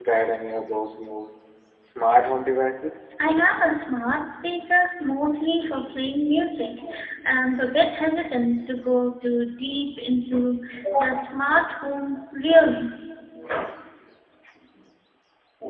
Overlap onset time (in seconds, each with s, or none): none